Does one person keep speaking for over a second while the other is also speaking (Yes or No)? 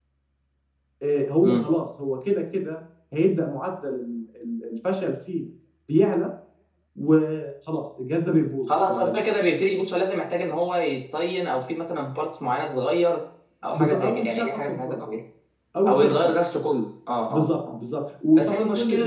Yes